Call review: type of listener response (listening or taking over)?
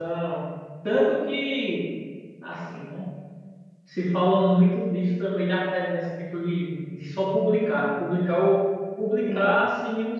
listening